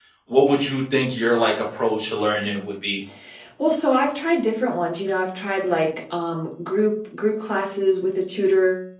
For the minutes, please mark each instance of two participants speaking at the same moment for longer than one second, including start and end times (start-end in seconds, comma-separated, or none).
none